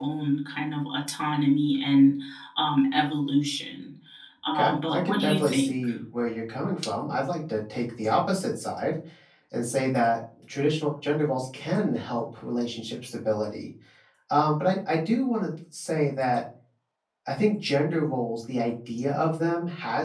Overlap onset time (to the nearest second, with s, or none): 4 s